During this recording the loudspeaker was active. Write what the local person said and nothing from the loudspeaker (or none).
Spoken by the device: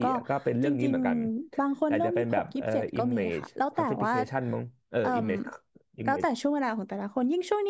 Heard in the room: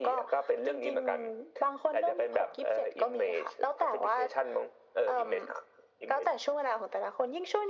none